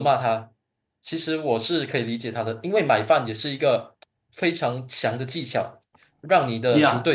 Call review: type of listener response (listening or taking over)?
taking over